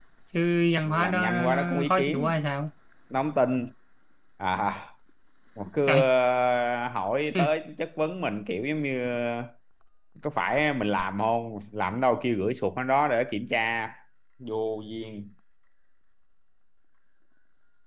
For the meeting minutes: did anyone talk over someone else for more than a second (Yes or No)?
Yes